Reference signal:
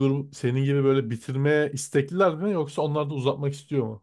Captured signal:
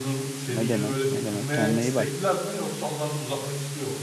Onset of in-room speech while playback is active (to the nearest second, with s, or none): 1 s